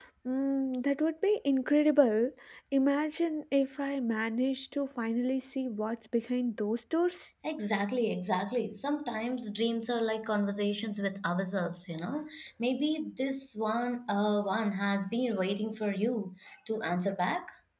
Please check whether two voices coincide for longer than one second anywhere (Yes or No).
No